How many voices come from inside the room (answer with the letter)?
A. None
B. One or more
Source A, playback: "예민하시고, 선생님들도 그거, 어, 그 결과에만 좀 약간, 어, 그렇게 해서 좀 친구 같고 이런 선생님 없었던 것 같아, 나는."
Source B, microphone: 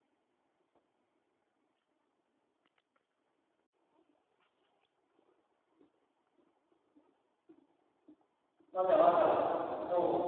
B